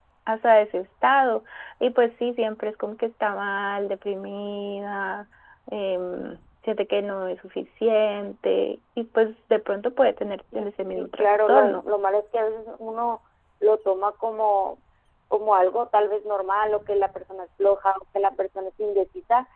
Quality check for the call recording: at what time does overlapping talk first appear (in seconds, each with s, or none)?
10.5 s